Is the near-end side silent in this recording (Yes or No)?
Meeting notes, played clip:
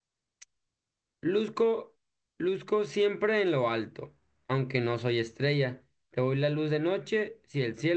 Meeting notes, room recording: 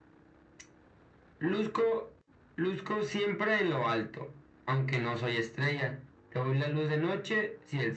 Yes